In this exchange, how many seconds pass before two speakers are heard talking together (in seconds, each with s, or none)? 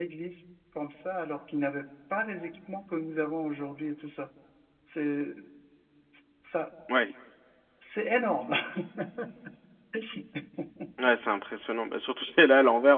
none